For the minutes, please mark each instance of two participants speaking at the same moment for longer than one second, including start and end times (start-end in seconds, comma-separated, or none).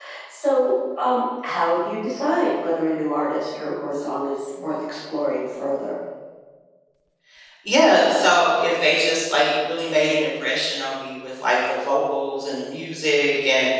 none